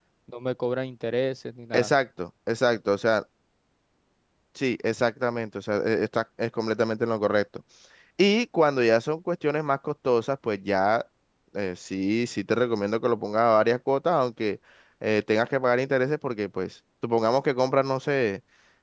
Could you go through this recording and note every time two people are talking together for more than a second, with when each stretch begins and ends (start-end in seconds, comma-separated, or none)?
none